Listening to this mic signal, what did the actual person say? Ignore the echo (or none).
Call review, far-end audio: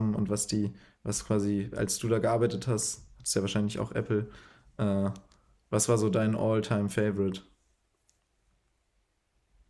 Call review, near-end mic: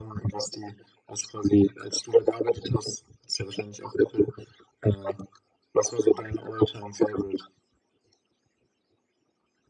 none